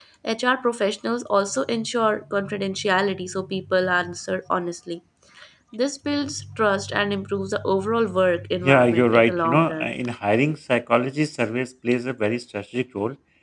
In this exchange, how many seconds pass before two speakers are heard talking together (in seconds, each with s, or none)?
8.6 s